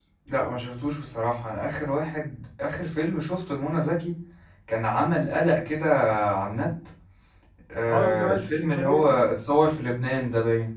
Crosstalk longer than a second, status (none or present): present